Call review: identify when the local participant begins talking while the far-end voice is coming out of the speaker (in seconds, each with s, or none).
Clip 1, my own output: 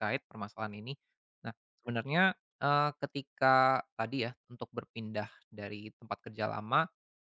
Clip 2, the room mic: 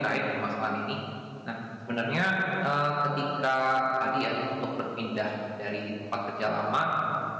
none